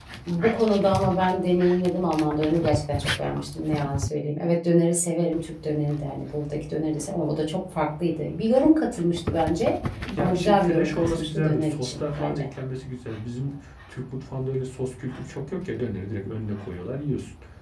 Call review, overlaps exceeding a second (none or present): present